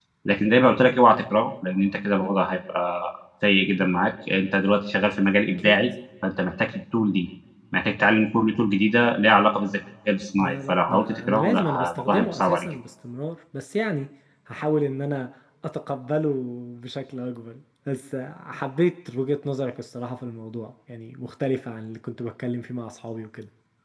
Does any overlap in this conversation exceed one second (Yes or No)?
Yes